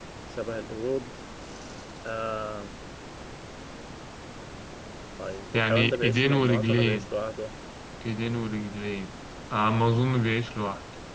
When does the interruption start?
6 s

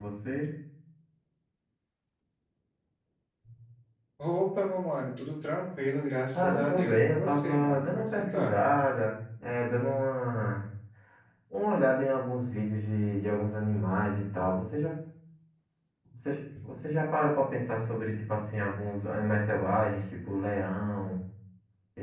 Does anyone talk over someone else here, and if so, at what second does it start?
6 s

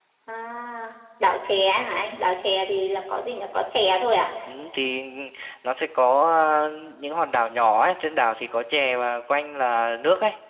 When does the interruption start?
none

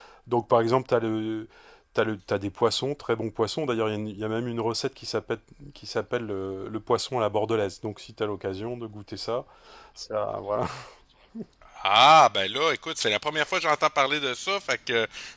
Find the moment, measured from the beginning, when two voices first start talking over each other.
none

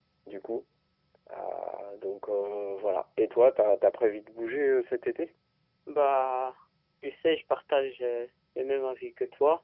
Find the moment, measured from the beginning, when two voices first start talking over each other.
none

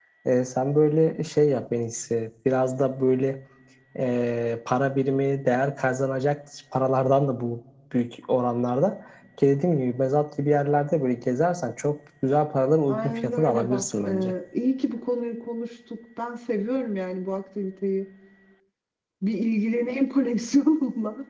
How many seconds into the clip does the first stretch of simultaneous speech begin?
13 s

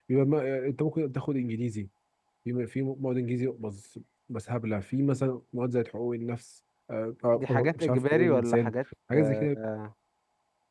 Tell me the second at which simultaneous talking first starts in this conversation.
7 s

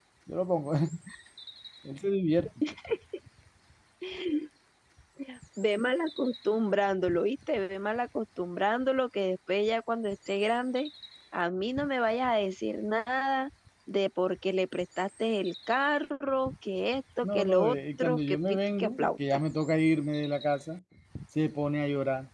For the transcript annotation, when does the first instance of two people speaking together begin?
17 s

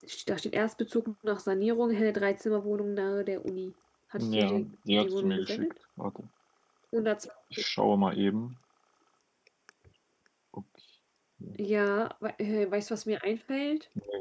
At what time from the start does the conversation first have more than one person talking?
4 s

